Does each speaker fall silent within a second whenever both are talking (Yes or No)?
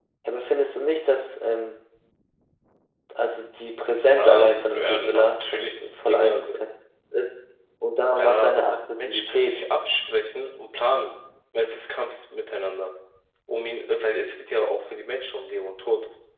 No